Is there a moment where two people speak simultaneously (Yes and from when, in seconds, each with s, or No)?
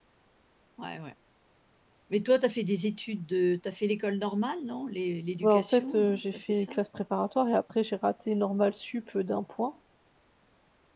Yes, from 5.4 s